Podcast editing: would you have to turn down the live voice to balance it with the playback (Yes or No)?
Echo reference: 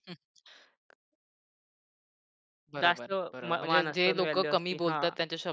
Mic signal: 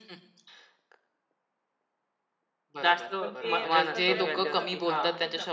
No